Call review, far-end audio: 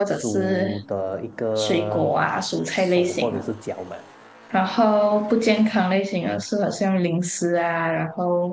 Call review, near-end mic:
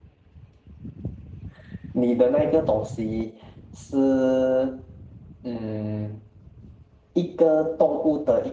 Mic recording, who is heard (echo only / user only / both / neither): user only